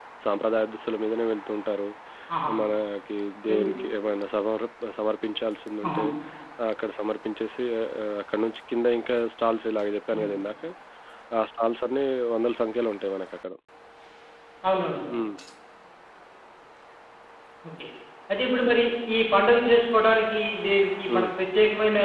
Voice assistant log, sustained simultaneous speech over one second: none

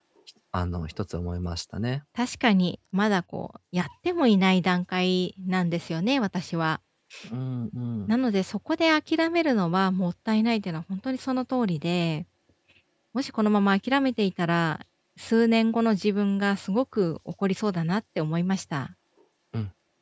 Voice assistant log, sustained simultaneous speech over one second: none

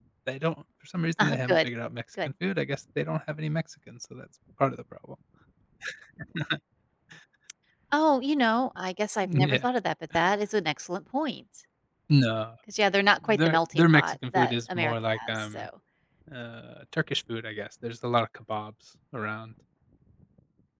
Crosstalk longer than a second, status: present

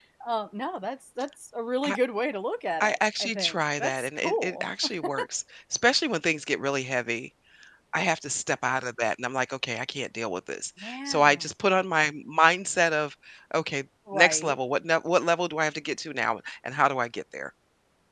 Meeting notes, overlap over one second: present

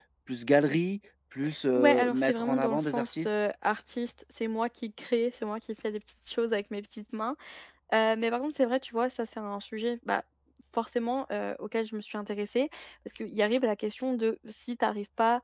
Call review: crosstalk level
present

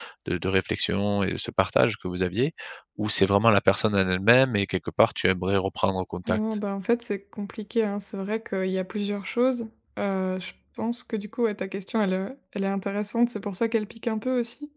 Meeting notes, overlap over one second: none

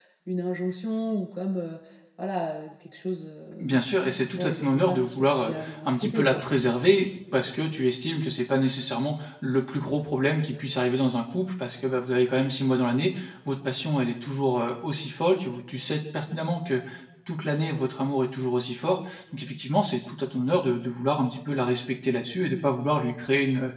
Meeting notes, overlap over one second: present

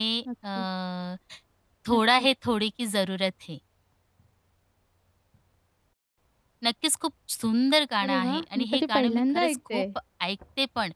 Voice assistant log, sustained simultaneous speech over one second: present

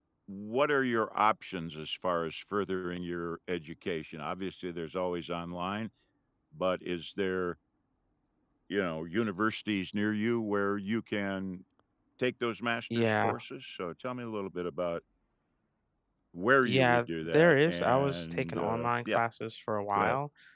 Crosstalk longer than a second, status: present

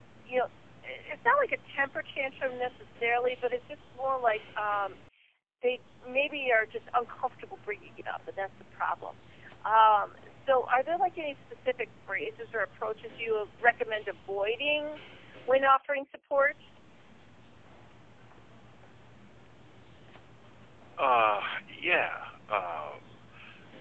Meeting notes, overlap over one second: none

